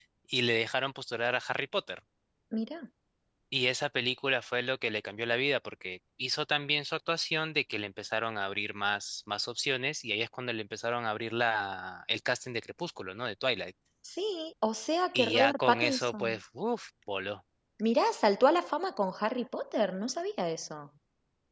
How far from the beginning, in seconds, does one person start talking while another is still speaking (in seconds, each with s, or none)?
15.1 s